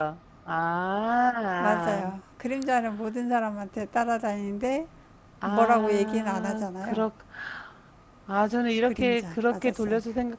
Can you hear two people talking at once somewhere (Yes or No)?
Yes